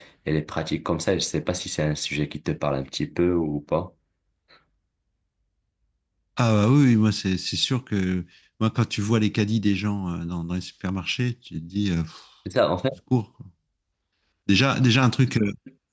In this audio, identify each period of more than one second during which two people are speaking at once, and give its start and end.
none

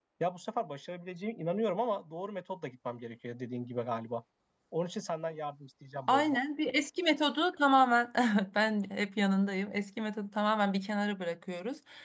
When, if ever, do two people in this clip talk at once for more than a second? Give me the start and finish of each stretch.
none

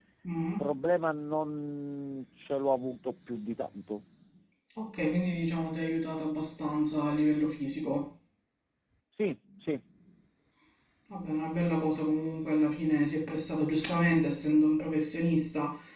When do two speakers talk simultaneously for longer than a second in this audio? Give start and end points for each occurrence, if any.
none

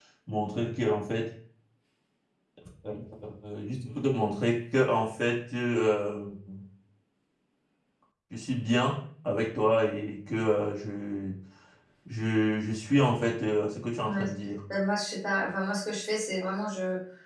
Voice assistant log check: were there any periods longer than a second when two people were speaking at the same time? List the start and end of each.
none

